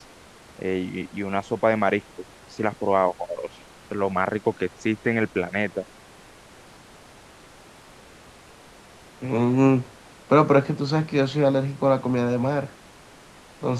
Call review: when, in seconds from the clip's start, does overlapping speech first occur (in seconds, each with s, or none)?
none